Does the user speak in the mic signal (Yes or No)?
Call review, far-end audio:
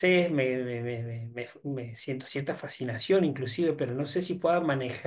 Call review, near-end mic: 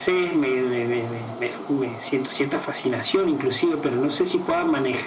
No